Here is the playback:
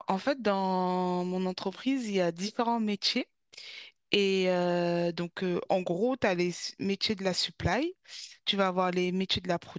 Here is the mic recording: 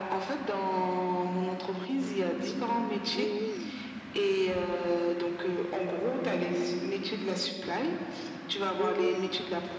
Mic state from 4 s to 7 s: echo only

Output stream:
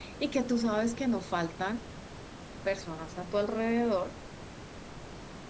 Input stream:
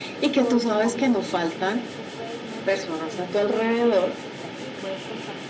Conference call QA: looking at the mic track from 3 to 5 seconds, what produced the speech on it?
both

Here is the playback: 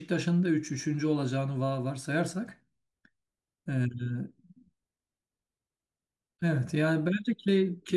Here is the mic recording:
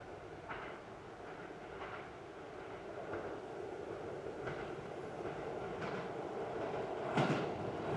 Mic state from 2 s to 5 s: neither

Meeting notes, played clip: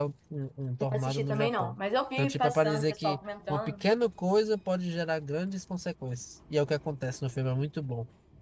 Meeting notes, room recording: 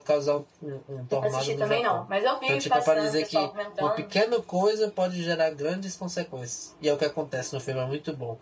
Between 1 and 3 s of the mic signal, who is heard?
echo only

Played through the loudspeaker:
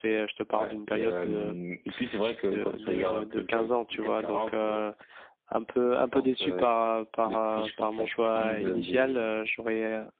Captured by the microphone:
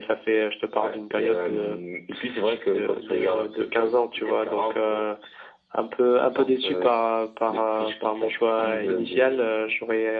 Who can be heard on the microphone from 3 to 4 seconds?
echo only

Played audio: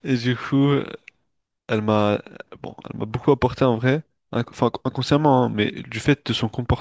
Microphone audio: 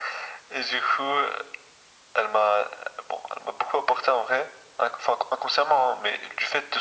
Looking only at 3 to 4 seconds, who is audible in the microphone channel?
echo only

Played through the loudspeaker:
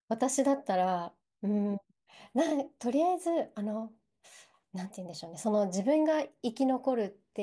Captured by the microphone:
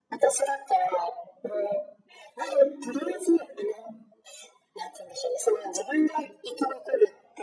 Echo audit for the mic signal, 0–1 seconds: echo only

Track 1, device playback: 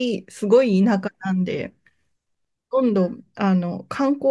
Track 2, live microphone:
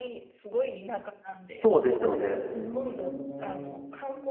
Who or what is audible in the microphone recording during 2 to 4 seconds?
both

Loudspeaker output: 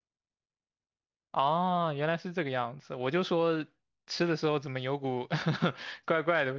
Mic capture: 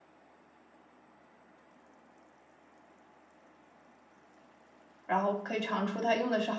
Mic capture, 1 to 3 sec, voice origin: neither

